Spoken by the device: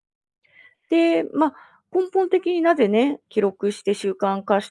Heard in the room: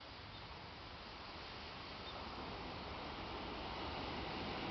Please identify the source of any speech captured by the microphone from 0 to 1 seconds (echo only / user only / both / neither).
neither